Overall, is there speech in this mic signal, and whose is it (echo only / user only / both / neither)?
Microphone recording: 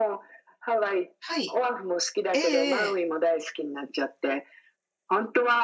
both